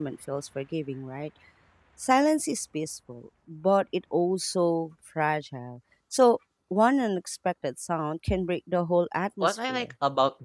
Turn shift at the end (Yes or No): Yes